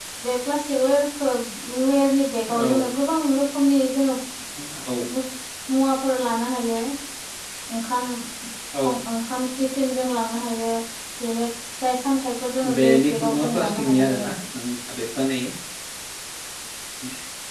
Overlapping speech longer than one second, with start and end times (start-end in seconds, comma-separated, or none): 12.8-14.4